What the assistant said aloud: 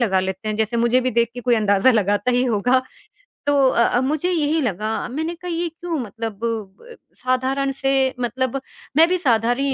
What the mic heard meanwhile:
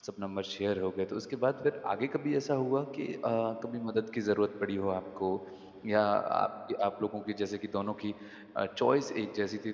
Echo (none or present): none